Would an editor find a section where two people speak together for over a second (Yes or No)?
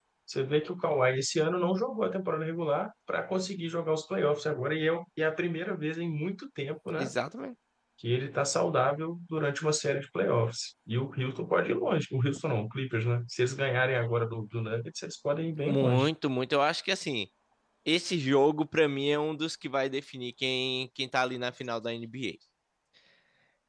No